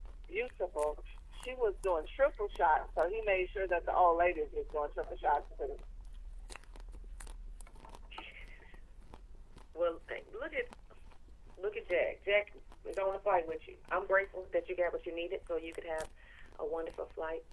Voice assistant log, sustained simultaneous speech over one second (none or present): none